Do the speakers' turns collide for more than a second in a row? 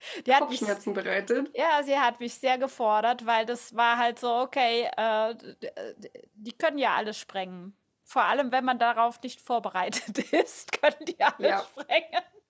No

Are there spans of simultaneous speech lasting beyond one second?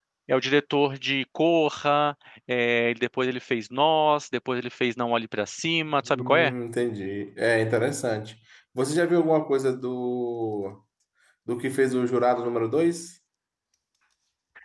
No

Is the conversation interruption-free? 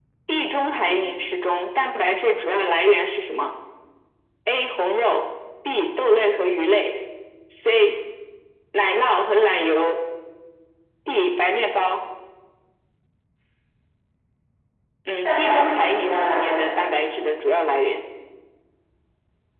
No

